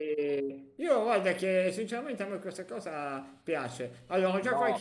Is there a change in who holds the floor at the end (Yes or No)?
Yes